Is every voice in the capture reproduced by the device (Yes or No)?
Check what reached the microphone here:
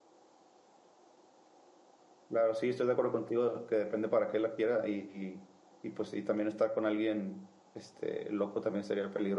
No